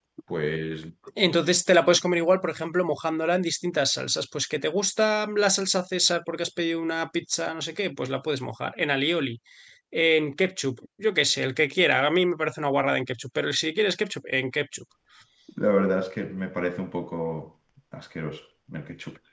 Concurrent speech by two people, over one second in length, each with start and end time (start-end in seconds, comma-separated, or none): none